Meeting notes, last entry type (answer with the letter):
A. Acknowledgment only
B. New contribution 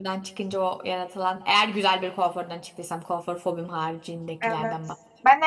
B